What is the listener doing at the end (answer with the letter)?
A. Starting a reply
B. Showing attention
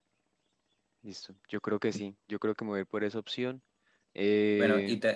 A